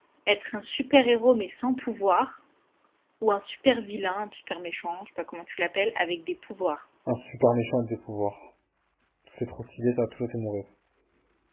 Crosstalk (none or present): none